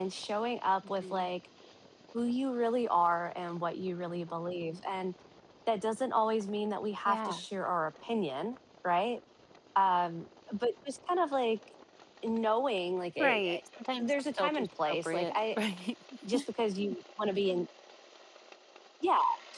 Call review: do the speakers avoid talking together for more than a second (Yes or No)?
No